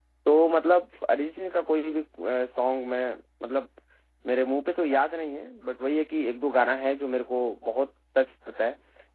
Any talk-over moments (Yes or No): No